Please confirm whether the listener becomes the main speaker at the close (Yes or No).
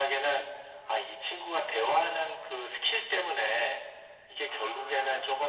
No